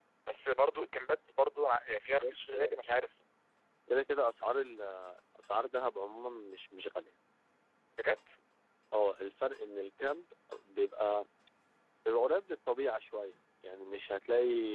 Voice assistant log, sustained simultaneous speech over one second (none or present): none